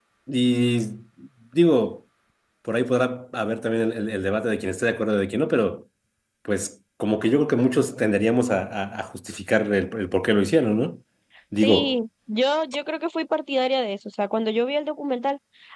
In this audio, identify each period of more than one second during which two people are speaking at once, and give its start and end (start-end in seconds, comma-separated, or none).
none